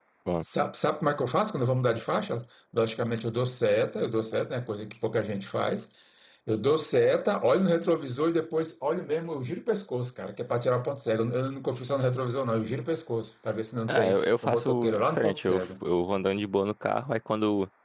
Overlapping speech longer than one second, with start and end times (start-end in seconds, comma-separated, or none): 13.9-15.6